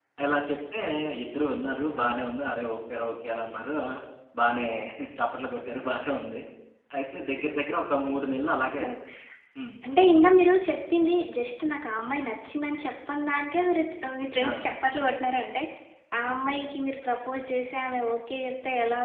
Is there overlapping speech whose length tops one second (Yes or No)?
No